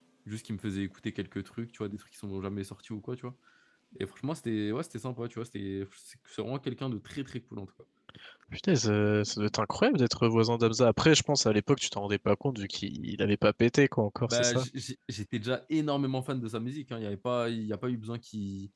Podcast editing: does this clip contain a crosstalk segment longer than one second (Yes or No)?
No